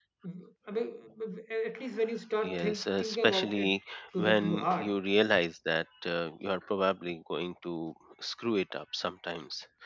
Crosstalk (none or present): present